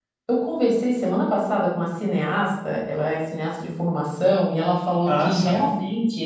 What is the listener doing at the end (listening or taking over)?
listening